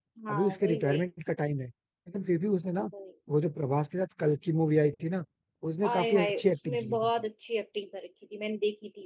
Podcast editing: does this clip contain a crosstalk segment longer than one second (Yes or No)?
Yes